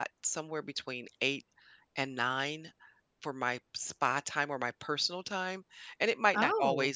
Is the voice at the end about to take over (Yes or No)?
No